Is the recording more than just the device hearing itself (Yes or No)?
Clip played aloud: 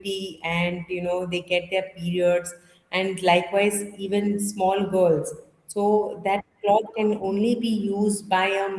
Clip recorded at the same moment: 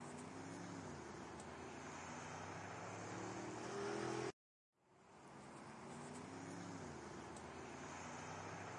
No